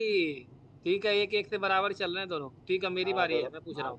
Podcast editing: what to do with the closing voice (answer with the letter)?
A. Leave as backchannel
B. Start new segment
B